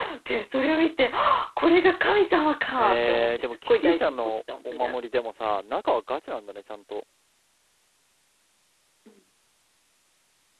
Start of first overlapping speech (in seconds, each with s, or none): 2.8 s